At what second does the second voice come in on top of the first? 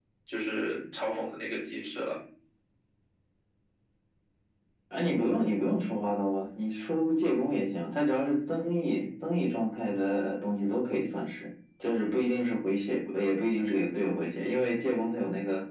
none

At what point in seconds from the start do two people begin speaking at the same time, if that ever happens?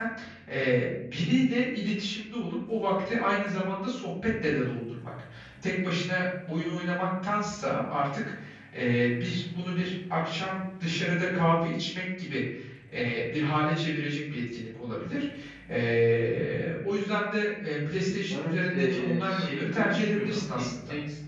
18.3 s

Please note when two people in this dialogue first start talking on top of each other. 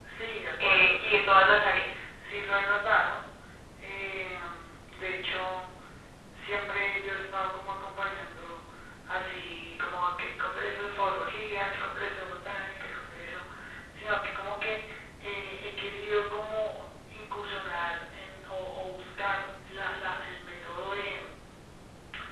0.6 s

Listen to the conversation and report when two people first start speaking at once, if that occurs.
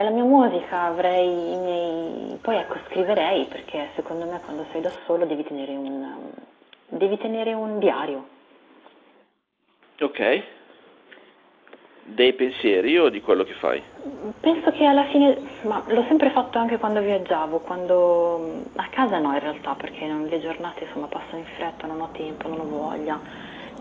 none

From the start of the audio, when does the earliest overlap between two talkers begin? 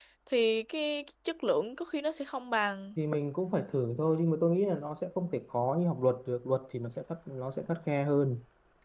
none

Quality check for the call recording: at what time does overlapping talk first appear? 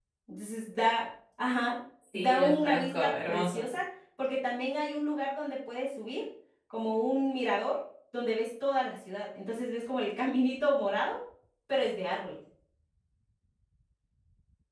2.1 s

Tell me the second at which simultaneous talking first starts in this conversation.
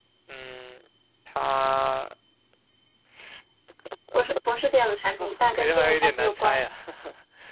4.6 s

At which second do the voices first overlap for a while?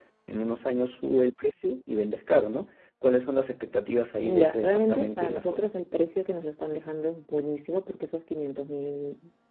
4.2 s

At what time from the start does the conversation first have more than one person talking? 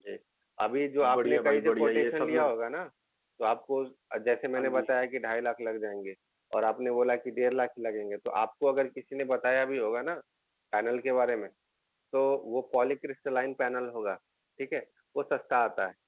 1.1 s

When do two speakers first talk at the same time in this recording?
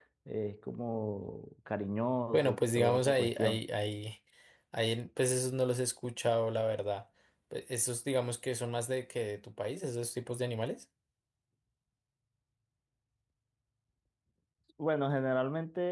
2.3 s

